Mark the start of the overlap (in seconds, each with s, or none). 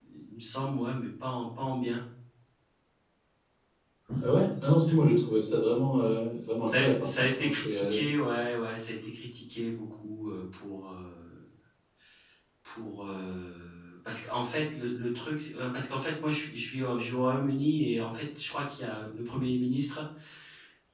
6.6 s